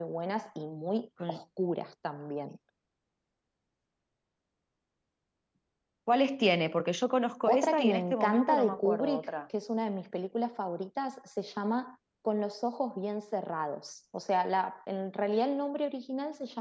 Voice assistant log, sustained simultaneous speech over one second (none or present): present